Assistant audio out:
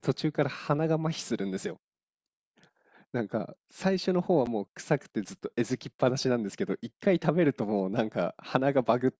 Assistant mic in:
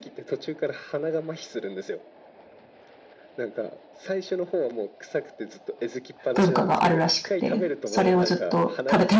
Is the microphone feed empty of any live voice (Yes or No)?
No